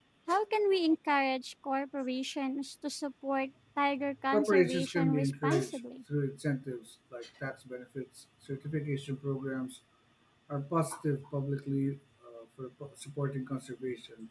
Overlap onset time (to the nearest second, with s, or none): 4 s